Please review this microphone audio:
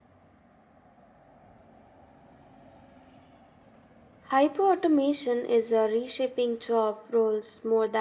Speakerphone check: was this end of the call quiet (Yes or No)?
No